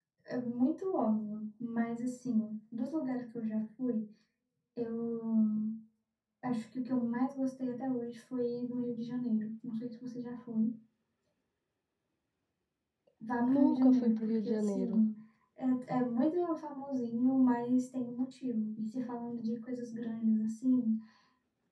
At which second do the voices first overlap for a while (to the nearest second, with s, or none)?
13 s